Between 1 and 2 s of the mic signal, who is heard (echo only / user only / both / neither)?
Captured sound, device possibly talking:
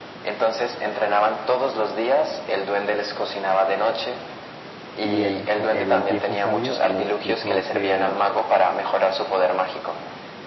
echo only